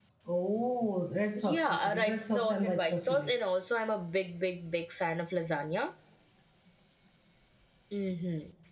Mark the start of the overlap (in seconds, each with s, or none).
1.4 s